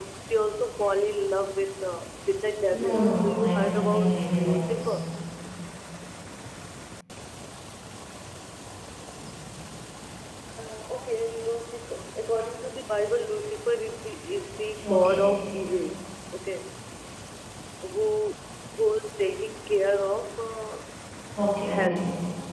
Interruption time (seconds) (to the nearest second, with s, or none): 3 s